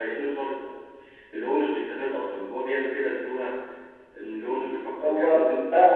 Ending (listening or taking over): taking over